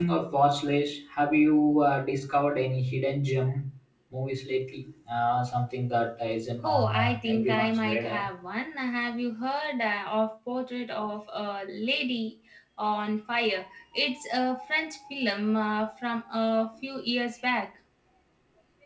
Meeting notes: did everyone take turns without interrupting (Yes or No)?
No